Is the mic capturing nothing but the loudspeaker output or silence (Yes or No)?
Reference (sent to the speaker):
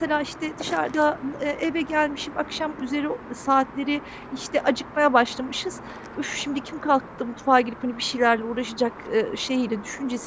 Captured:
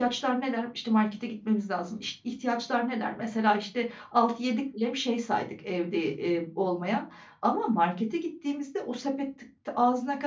No